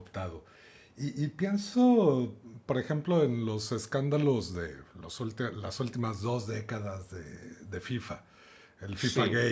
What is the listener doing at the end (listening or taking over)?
listening